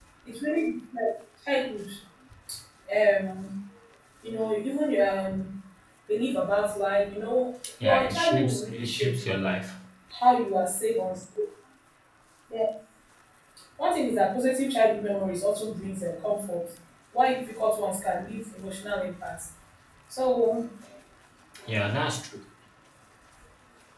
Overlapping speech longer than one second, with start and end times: 7.8-9.4

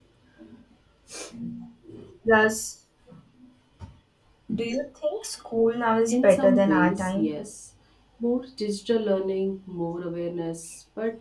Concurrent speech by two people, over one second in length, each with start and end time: 6.1-7.3

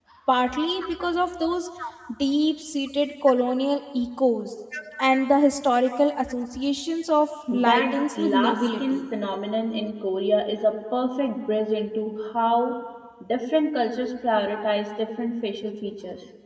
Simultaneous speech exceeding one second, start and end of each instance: 7.6-9.1

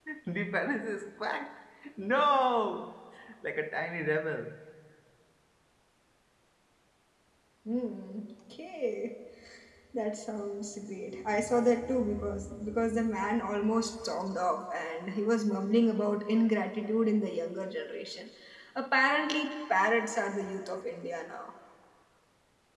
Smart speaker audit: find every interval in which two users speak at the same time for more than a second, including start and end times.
none

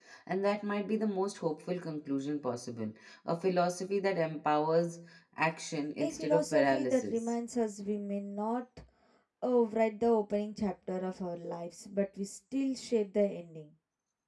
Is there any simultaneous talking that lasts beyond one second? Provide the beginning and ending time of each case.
6.0-7.3

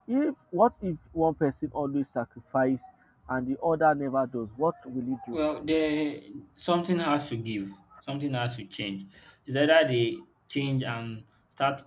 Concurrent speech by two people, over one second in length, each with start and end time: none

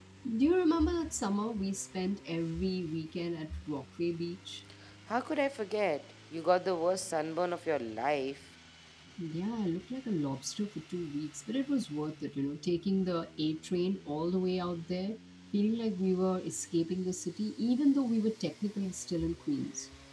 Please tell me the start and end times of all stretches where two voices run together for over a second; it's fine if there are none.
none

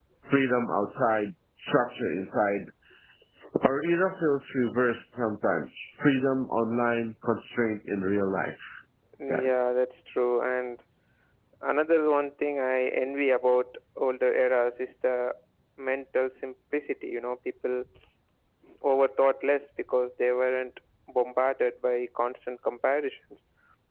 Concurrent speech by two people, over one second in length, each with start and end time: none

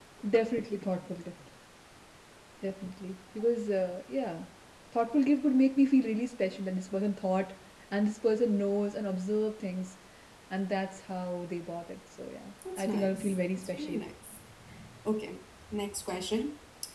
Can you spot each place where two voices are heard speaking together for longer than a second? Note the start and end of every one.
12.8-14.0

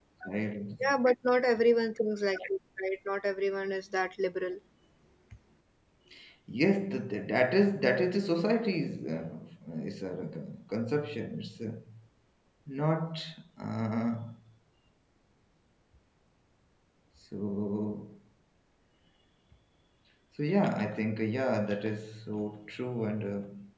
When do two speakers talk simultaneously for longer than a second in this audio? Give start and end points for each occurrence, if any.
none

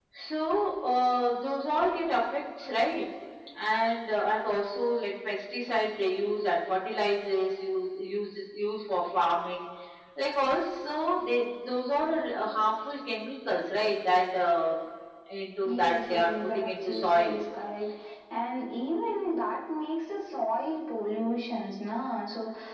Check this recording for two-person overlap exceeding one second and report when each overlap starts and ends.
15.6-17.4

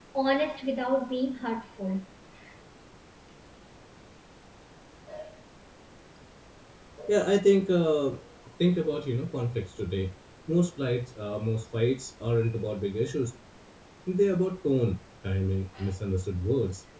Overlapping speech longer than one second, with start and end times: none

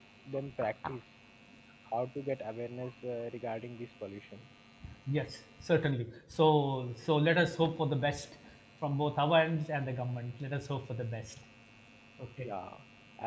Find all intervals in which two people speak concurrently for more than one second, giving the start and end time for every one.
none

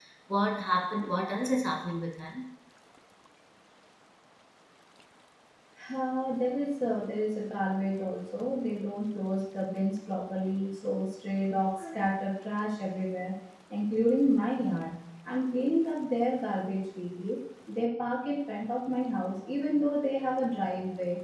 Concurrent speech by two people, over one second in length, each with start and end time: none

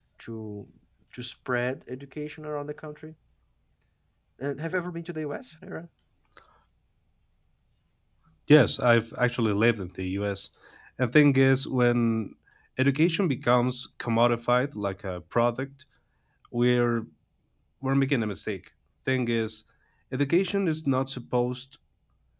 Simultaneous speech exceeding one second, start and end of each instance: none

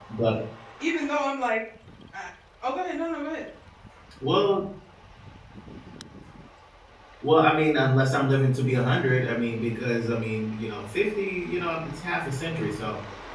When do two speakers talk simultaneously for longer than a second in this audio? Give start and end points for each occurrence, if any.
none

